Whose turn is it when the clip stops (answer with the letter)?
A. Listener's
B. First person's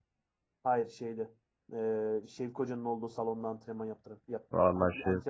A